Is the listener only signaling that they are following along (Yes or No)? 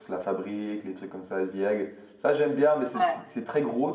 Yes